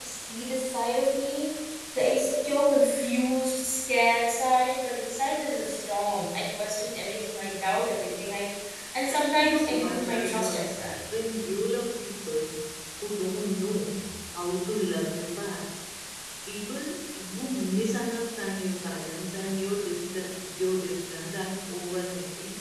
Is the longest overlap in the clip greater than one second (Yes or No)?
Yes